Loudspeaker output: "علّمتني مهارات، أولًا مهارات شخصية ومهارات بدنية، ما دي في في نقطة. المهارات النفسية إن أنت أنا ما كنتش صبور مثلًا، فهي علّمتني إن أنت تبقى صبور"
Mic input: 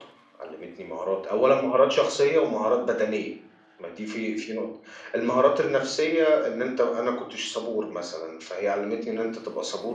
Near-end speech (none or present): none